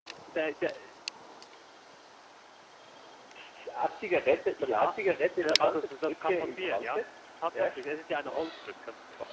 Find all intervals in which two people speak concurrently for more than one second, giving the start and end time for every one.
5.4-7.0

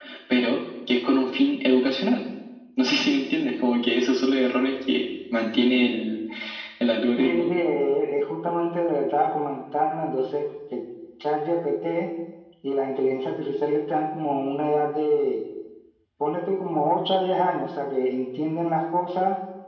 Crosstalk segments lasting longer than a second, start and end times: none

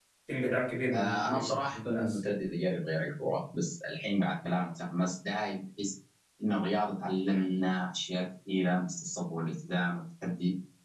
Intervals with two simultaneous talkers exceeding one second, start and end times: 0.9-2.2

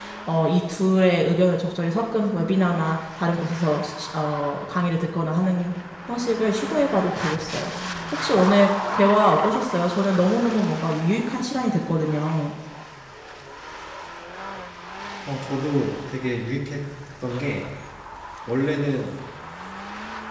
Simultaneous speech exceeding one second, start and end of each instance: none

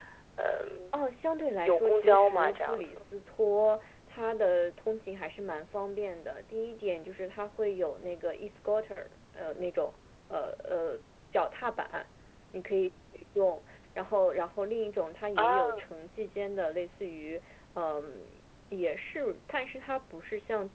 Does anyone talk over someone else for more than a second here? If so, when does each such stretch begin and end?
1.6-3.0

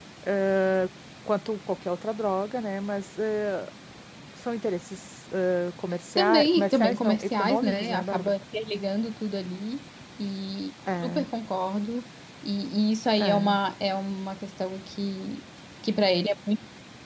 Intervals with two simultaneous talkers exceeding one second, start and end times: 6.2-8.3

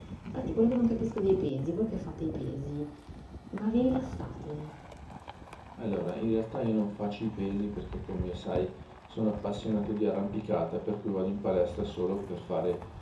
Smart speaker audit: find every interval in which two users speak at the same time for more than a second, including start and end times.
none

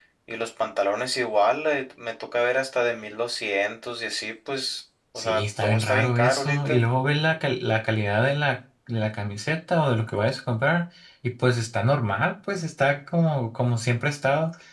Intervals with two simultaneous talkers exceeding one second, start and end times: 5.2-6.8

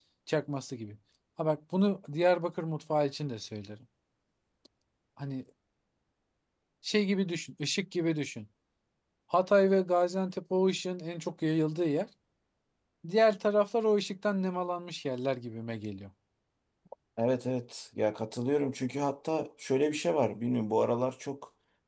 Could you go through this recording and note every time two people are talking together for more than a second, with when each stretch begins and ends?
none

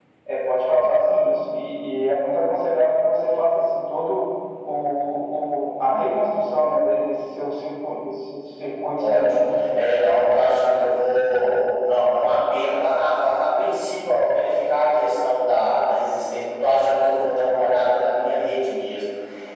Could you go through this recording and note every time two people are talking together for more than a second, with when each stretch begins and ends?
none

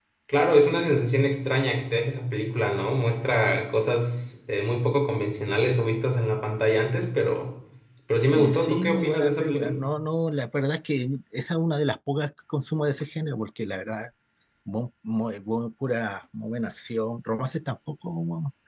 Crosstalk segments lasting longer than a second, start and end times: 8.3-9.8

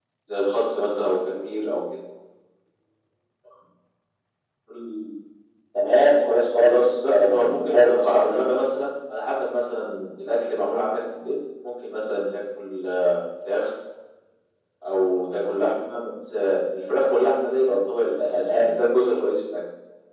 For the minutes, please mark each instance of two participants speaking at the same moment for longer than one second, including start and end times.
6.5-8.4

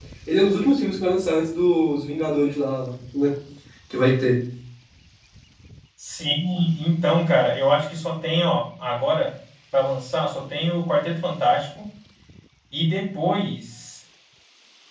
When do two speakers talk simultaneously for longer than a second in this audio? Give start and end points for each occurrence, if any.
none

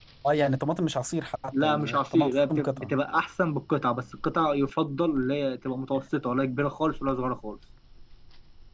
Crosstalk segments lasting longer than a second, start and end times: 1.5-2.9

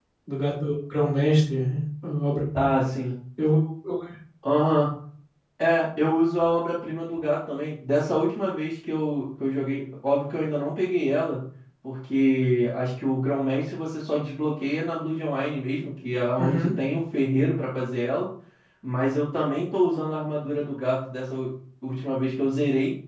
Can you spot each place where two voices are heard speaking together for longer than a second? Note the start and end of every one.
none

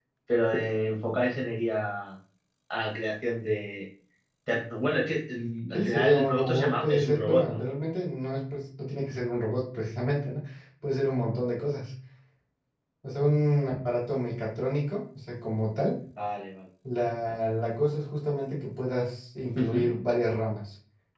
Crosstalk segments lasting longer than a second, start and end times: 5.7-7.6

